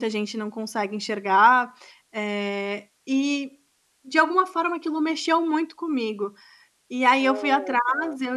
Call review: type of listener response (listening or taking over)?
listening